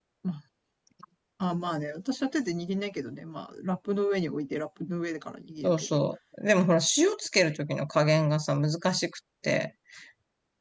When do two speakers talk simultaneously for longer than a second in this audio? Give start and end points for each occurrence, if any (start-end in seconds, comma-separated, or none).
none